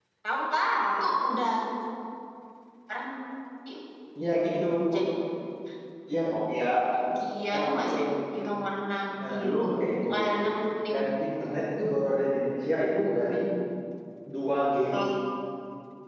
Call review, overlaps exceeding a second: none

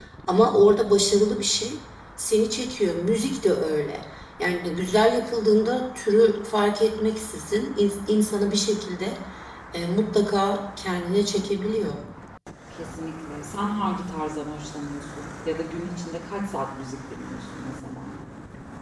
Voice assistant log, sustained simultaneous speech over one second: none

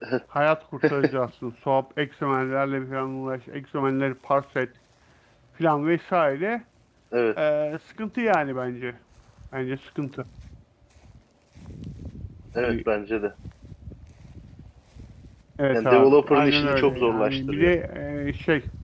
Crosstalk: present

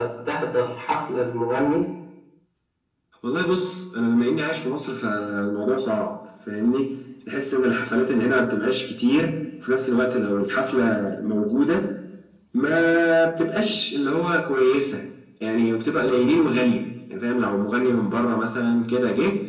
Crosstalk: none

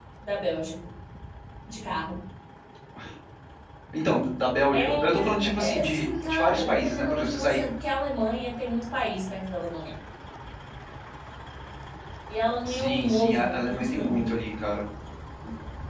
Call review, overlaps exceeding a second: present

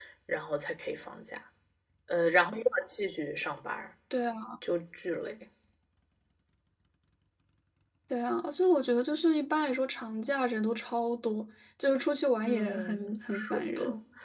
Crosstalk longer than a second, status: present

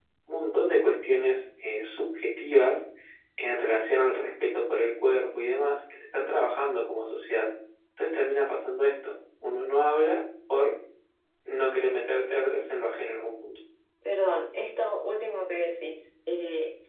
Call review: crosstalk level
none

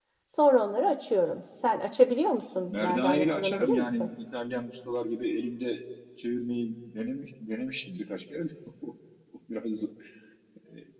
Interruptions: present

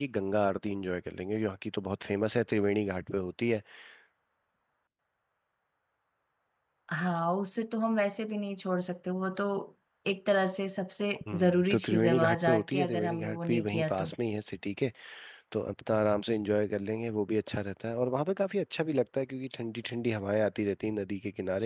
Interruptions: present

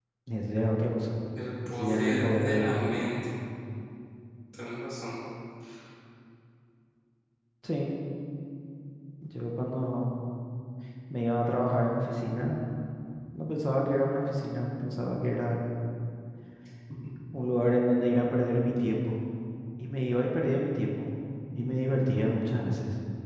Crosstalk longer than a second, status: present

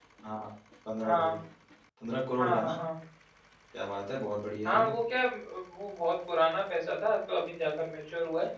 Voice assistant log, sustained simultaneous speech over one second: none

